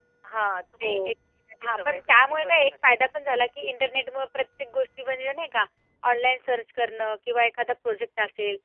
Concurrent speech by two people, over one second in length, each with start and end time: 1.6-2.9

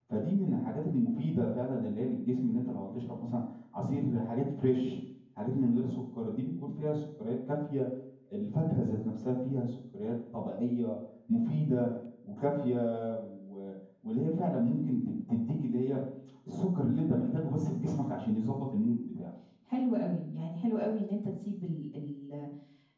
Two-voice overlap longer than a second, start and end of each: none

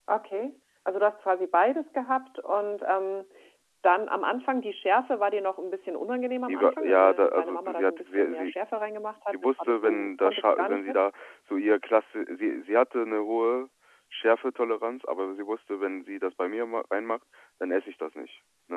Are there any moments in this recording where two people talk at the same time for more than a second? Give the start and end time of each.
6.5-8.5, 9.3-11.0

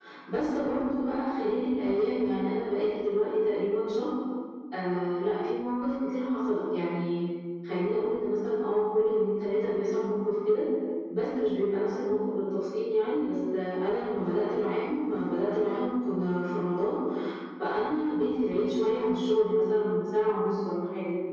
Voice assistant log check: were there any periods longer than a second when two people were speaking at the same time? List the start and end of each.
none

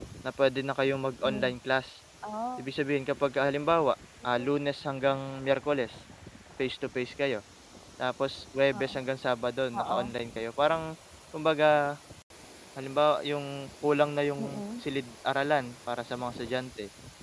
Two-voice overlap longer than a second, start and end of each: none

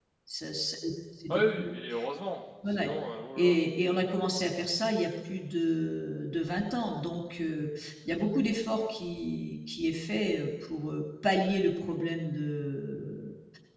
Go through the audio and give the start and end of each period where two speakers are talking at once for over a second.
none

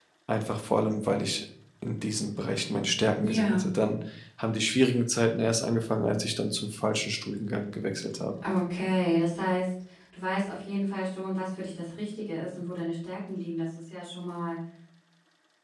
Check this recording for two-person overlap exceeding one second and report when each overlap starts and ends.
none

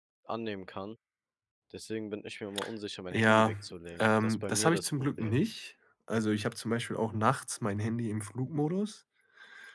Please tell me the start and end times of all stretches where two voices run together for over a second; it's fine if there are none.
4.0-5.4

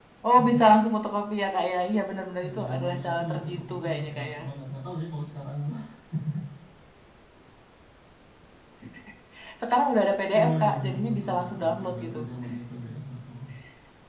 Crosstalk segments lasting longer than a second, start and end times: 2.4-4.4, 10.4-12.3

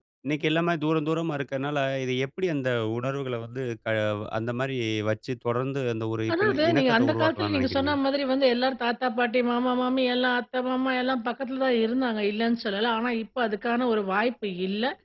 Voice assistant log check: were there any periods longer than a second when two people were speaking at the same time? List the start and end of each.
6.3-8.0

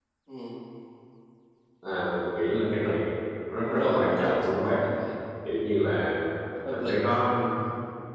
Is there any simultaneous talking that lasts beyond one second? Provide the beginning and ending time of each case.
3.6-4.8

